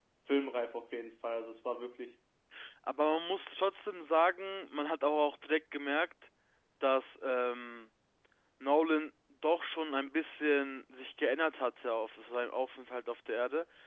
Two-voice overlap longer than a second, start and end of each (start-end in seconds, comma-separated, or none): none